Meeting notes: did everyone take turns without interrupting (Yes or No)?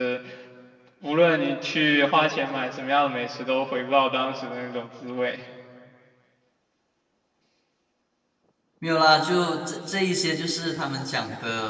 Yes